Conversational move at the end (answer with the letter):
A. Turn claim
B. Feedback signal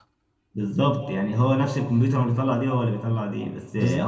B